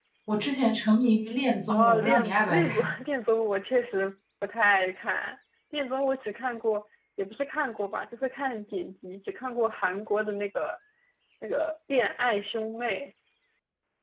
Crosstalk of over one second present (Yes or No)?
Yes